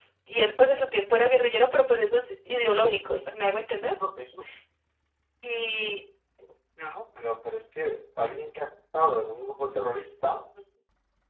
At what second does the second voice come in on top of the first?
none

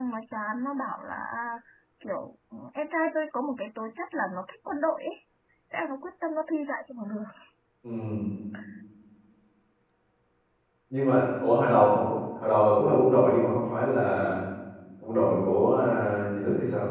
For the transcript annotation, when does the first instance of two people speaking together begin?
none

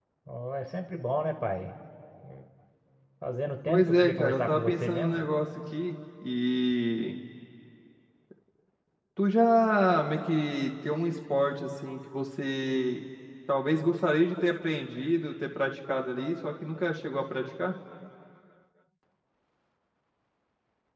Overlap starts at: 3.7 s

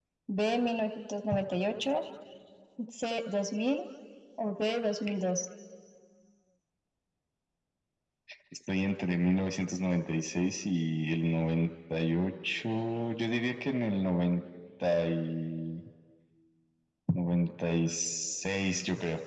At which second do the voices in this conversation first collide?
none

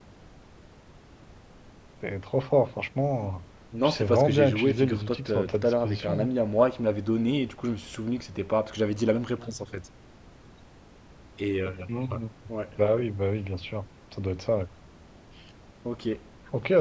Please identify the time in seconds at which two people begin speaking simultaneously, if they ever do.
3.7 s

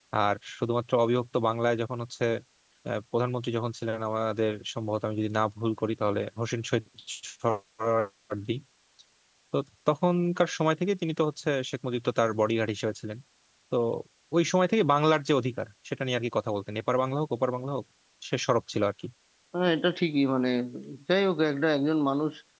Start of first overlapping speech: none

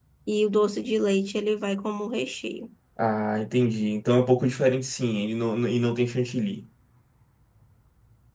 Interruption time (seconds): none

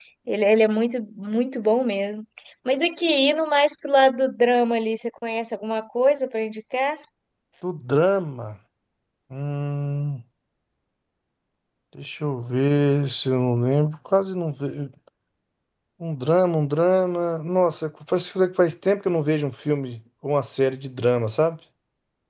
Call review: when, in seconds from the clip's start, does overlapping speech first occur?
none

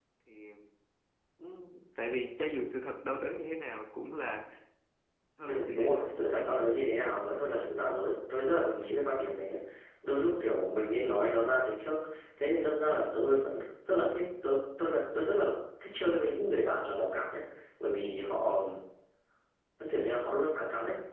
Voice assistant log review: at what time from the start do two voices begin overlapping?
5.5 s

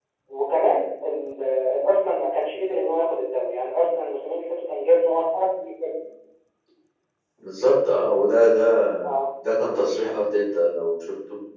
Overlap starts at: none

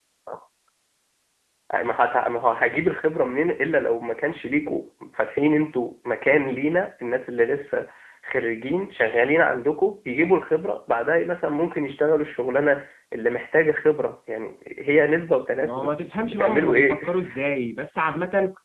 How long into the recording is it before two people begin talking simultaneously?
15.6 s

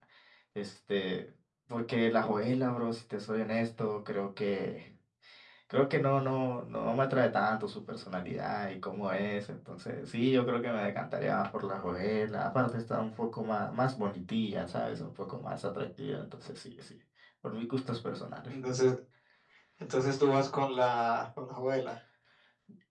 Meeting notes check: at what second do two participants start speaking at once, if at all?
none

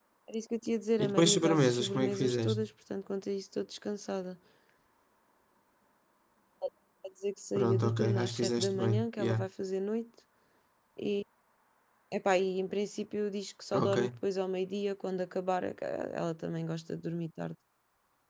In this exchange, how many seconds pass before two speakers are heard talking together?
1.0 s

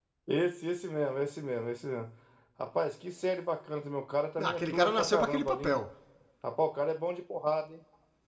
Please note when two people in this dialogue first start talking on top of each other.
4.4 s

